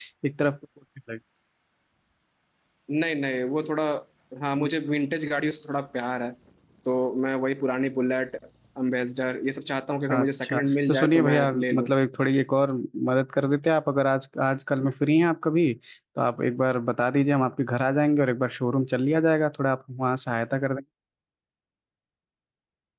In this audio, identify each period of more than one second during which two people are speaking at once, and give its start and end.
10.1-11.9

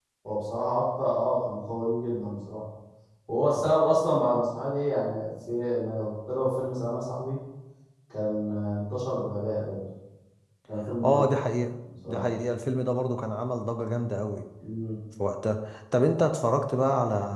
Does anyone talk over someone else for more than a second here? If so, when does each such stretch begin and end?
none

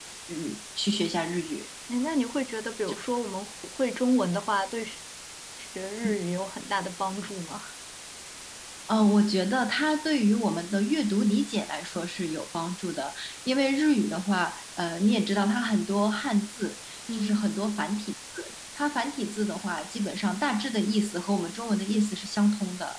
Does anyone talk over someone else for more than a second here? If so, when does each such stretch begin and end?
none

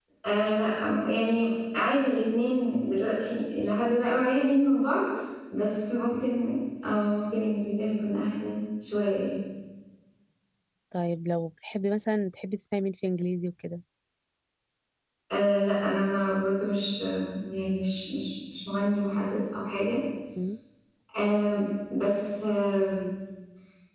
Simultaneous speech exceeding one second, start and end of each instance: none

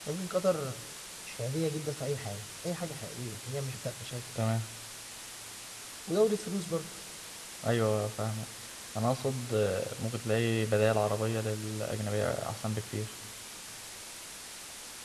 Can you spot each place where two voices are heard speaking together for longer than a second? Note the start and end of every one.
none

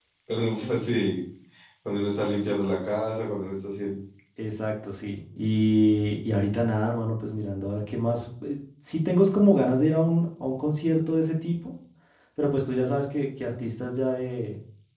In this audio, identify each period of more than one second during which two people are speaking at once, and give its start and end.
none

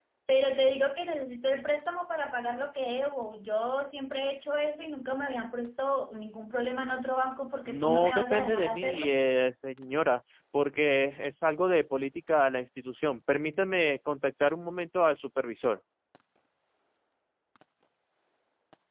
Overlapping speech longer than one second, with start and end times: 7.7-9.1

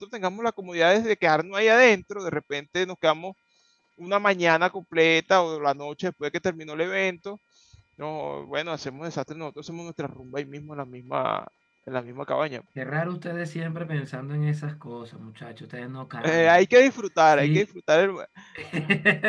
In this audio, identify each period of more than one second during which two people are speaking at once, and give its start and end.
none

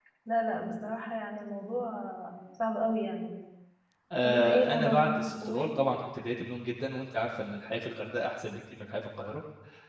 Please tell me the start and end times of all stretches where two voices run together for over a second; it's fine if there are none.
4.2-5.7

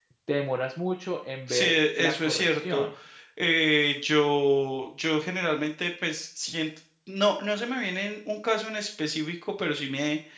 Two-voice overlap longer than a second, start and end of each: 1.5-2.8

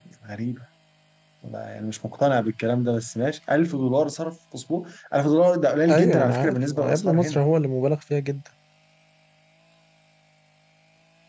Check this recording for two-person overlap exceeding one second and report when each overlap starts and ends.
5.9-7.4

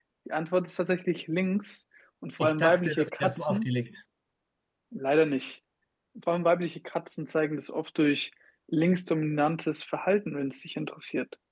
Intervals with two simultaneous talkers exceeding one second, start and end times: 2.4-3.7

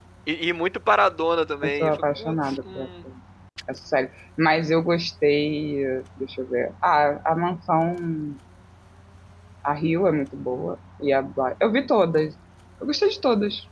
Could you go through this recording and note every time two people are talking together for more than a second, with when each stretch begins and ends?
1.6-2.9

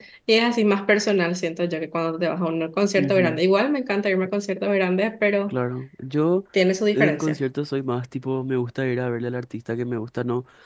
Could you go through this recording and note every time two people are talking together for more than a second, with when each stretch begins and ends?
none

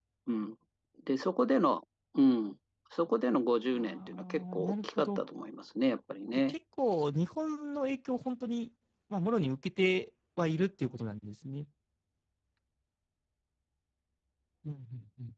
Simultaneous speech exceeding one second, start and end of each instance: 3.7-5.2

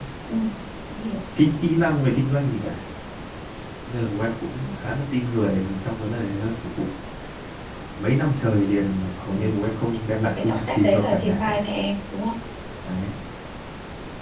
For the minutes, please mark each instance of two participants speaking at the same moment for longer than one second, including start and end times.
10.2-11.6

